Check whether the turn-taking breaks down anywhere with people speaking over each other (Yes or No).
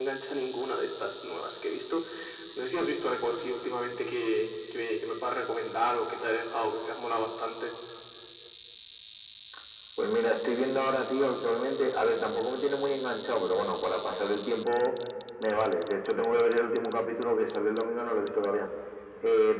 No